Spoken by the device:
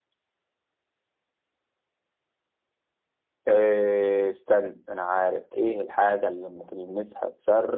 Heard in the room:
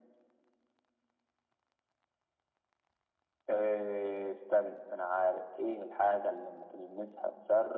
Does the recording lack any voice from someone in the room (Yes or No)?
Yes